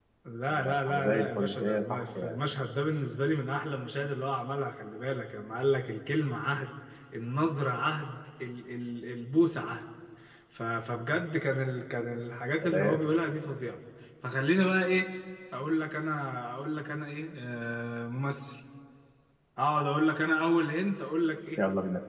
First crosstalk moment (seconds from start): 0.5 s

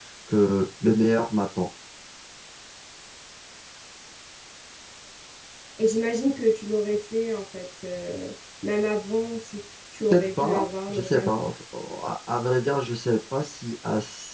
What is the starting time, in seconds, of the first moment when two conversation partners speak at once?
10.1 s

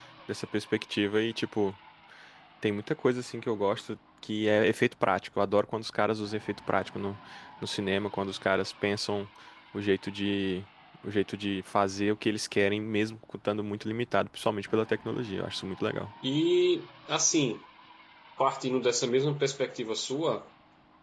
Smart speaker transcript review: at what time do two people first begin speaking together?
none

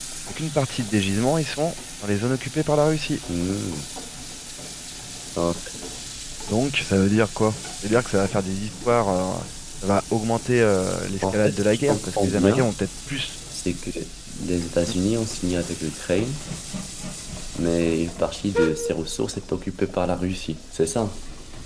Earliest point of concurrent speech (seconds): 11.2 s

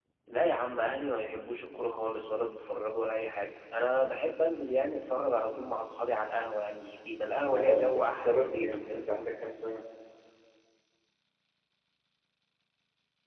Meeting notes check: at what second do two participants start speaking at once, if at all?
7.5 s

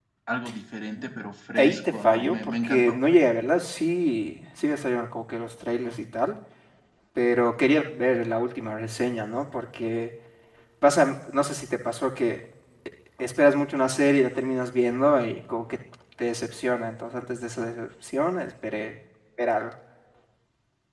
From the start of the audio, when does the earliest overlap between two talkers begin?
1.6 s

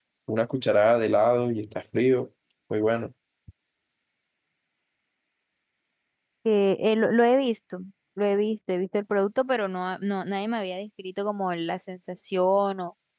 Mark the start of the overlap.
none

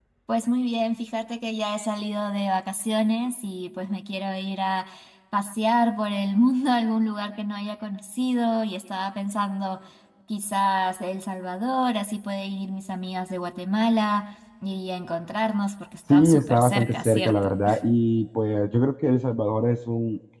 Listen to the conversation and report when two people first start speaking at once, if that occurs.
16.1 s

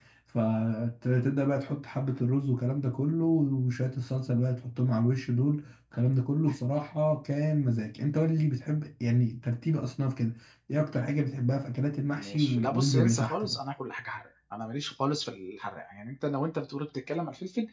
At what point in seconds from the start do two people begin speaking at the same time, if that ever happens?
12.2 s

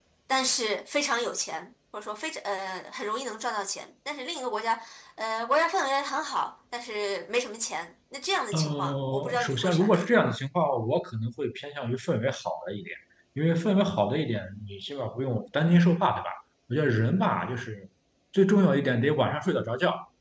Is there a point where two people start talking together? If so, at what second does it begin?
8.5 s

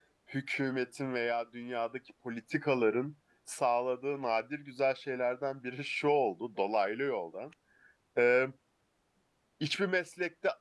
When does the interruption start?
none

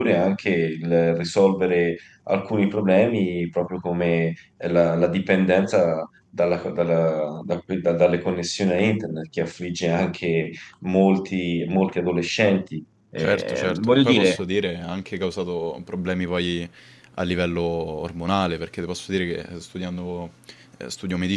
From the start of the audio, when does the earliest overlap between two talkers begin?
13.2 s

